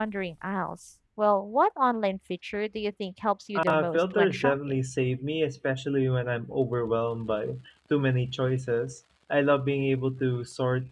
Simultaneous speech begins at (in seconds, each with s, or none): 3.6 s